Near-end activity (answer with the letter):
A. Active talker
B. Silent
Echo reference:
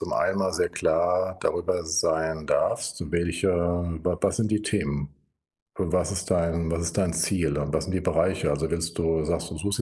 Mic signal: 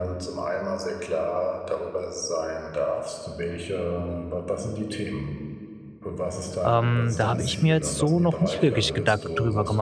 A